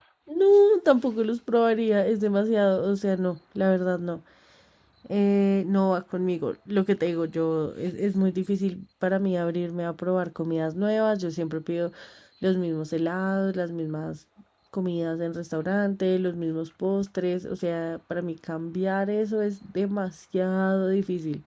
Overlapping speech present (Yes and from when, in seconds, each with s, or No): No